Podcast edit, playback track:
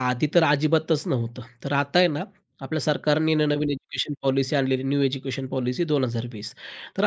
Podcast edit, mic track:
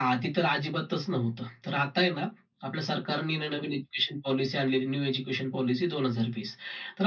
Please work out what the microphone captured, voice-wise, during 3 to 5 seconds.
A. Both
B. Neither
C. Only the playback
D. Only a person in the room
C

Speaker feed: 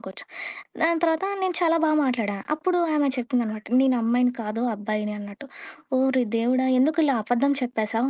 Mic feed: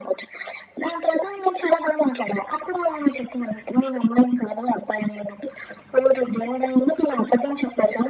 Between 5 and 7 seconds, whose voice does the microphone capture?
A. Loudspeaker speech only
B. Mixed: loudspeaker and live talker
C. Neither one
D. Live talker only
A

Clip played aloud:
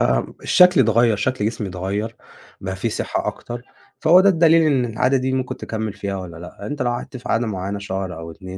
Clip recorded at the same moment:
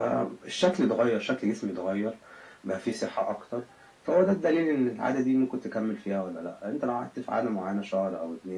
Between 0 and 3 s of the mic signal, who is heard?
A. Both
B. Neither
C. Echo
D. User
C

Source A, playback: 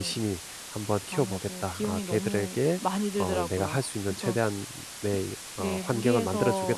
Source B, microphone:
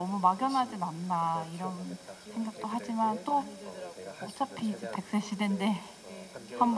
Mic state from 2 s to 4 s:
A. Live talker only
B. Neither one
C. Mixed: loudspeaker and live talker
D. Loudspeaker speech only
C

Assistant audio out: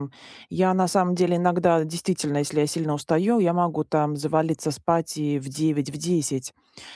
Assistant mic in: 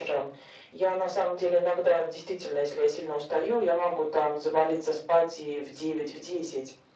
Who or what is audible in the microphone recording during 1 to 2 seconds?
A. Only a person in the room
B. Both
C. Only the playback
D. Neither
C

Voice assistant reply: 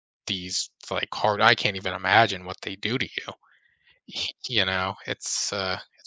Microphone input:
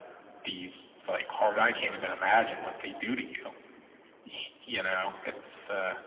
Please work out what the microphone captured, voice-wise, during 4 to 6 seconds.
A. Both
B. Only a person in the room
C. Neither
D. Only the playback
D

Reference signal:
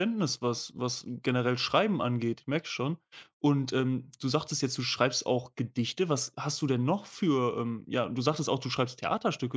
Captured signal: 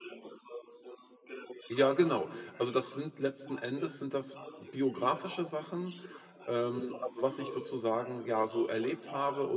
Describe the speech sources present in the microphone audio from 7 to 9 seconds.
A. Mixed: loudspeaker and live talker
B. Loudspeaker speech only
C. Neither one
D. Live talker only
A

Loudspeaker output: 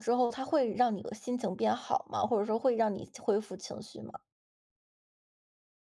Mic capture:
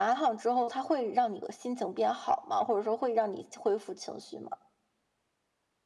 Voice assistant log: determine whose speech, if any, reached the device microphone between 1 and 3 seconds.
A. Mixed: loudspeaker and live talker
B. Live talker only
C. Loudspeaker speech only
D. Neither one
C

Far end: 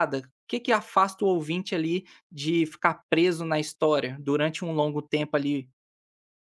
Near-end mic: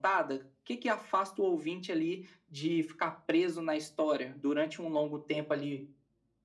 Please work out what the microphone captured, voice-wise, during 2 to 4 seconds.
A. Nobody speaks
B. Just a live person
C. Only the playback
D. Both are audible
C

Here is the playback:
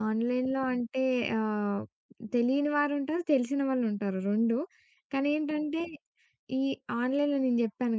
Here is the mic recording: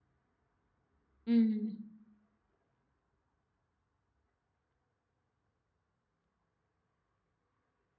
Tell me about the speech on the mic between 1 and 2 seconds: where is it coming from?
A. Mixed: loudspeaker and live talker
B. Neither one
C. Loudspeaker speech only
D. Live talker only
D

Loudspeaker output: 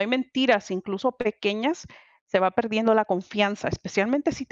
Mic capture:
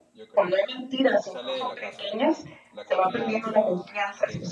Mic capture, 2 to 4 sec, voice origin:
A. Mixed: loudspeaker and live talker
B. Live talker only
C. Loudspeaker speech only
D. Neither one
A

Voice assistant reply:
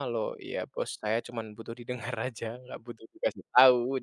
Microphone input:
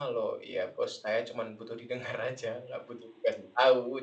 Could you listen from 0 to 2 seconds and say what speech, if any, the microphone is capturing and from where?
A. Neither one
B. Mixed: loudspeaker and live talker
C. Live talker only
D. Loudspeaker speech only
D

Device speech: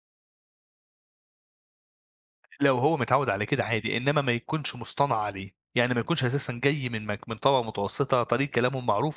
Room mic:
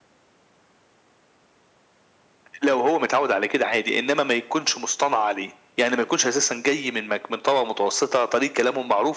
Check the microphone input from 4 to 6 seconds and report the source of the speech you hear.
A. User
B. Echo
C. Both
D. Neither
B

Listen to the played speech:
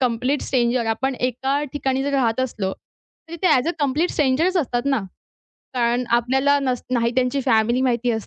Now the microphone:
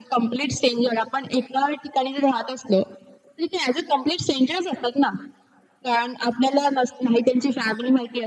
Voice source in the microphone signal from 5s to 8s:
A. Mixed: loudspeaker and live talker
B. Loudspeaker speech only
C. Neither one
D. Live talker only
B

